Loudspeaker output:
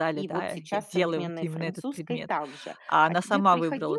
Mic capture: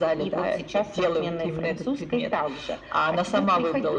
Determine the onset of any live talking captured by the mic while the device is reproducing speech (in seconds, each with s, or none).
none